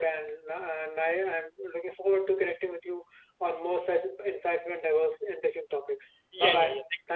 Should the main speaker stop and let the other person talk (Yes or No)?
Yes